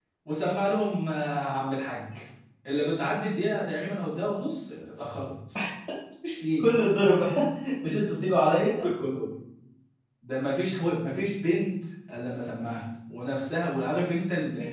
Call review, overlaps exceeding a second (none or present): none